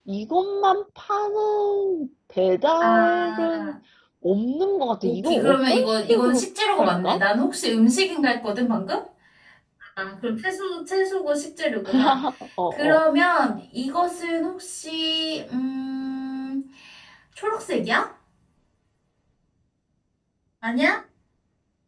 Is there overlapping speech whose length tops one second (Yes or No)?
Yes